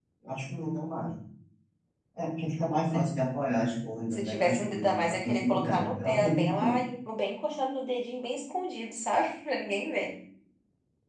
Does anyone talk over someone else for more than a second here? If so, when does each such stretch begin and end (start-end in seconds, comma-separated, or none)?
4.1-6.8